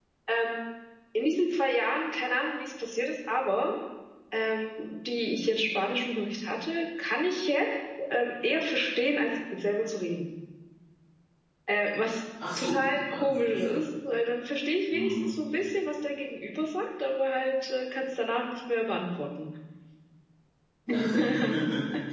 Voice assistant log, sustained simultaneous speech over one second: present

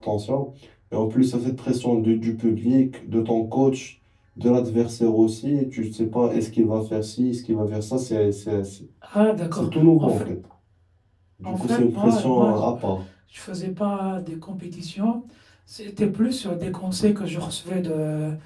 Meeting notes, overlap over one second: present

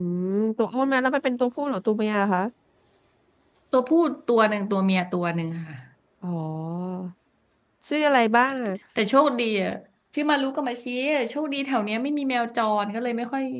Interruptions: none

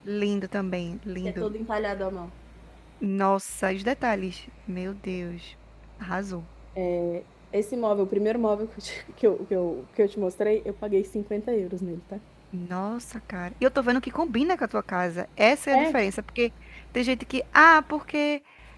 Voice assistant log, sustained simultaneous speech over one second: none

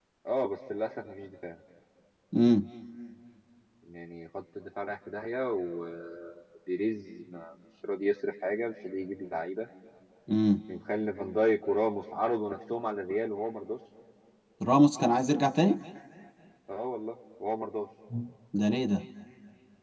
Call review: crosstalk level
none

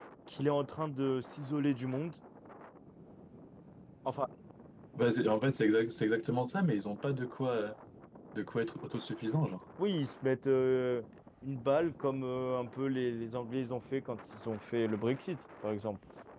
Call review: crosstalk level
none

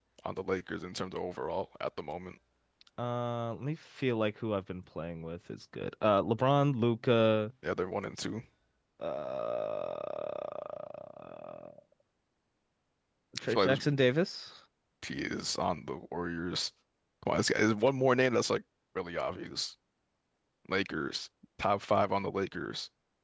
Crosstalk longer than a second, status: none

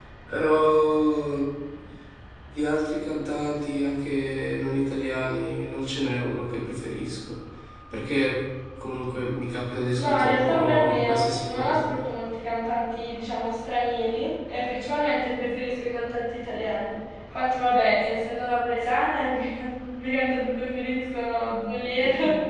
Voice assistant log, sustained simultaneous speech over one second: present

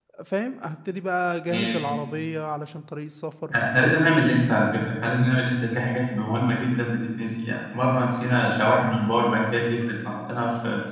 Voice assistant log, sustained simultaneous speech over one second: none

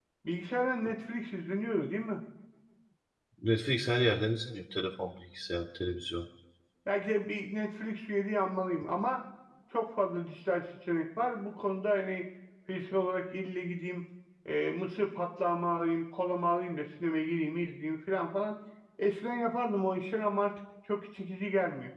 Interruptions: none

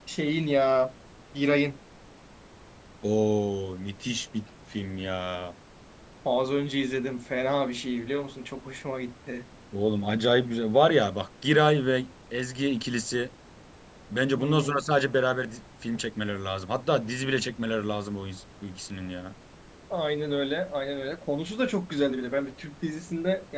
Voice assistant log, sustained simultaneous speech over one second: none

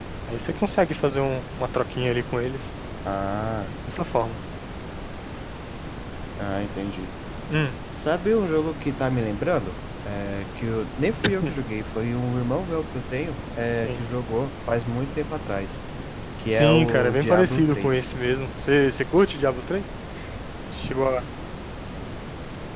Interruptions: present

